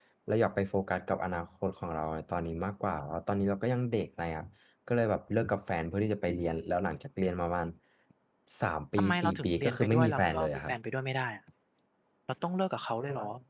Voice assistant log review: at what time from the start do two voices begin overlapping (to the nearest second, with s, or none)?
9 s